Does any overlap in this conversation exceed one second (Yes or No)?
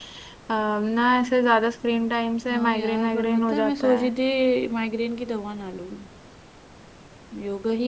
Yes